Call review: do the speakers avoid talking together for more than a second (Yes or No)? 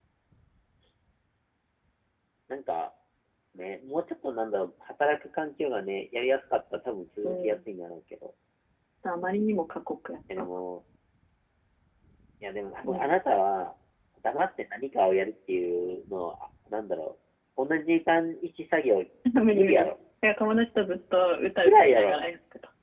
Yes